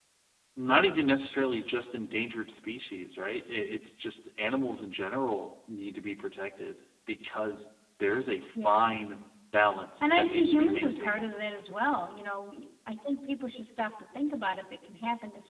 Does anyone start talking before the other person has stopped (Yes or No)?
Yes